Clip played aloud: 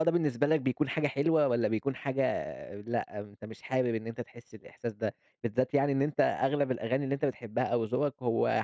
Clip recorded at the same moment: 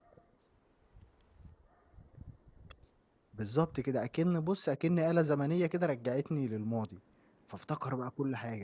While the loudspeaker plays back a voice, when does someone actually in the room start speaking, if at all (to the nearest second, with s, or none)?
3 s